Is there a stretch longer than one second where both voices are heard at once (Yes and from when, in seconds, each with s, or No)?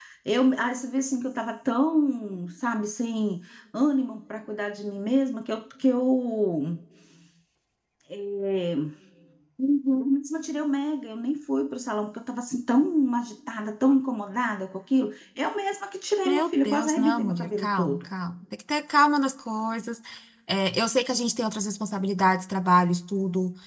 Yes, from 16.2 s